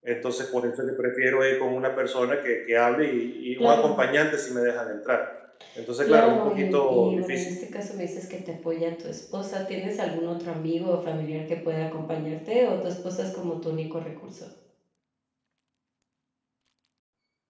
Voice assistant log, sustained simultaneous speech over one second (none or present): present